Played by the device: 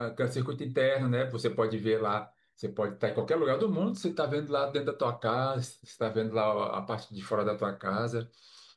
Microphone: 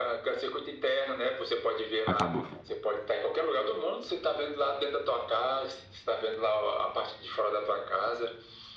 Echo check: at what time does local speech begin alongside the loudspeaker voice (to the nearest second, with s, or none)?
2 s